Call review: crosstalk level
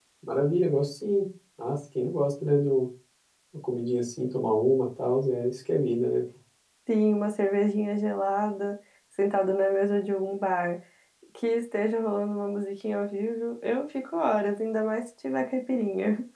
none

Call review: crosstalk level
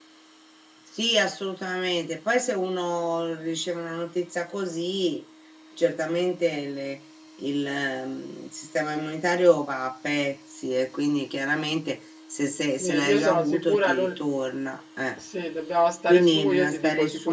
present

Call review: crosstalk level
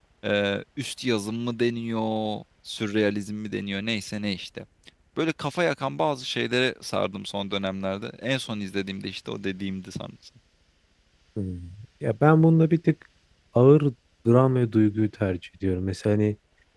none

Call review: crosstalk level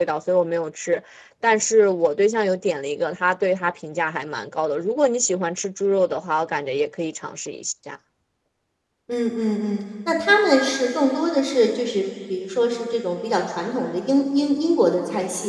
none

